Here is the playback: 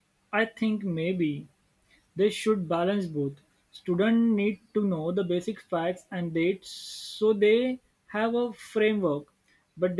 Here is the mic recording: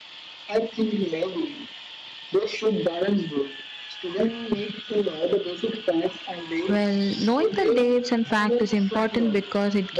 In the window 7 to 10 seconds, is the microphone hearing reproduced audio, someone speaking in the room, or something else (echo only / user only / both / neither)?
both